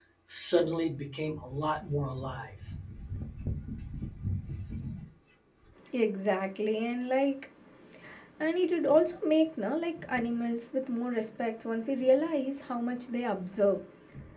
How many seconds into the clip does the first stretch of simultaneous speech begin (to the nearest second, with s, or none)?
none